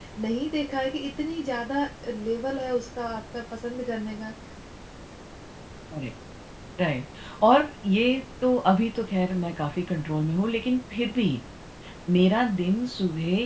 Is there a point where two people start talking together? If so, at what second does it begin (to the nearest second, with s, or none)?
none